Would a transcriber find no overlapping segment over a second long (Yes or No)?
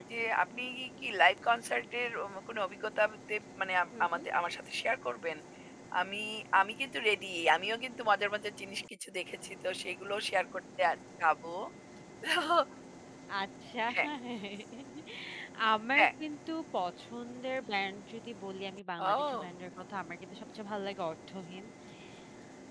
Yes